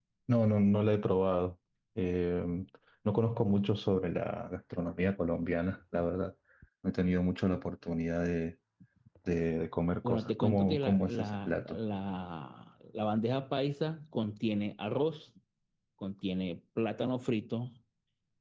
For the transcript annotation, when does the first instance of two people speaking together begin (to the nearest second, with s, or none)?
10 s